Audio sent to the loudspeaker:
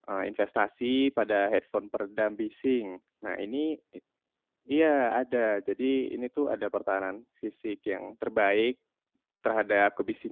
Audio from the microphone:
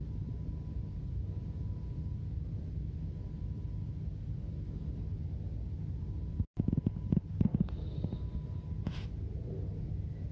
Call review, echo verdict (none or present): none